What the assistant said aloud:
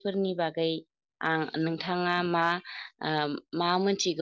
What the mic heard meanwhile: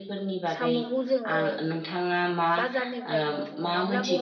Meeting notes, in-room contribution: present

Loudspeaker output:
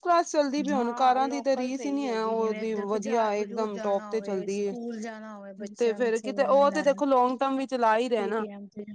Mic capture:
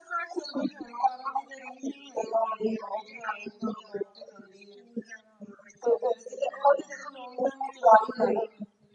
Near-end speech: none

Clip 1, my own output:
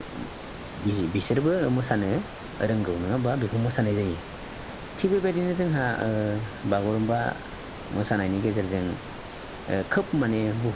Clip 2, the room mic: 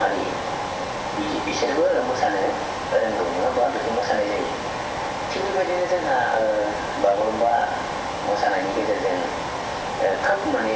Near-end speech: none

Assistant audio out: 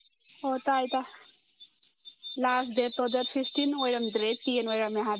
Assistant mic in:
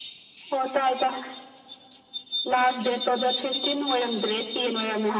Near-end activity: none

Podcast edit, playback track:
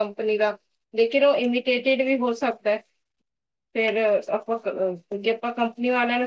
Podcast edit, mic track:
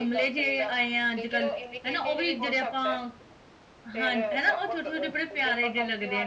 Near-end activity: present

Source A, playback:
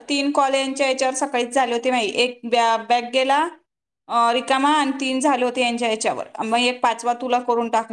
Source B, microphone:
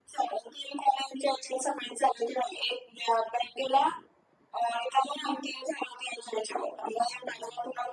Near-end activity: none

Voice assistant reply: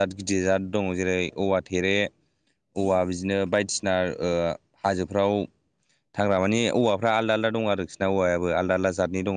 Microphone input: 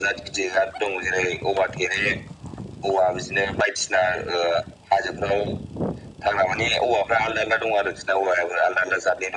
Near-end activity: none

